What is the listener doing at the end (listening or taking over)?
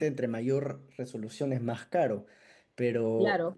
listening